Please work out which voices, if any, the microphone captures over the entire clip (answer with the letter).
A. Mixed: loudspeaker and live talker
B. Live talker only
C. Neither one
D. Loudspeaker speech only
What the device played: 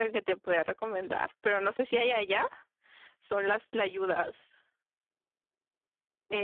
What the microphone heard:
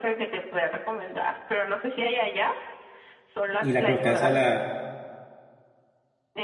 A